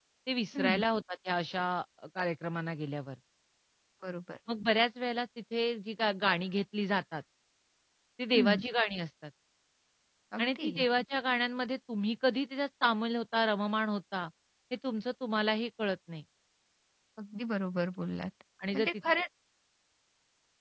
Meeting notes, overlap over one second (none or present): none